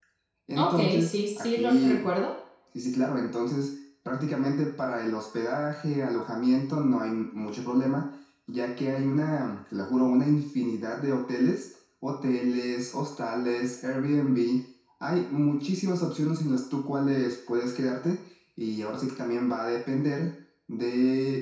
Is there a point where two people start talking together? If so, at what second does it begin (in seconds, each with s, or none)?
0.6 s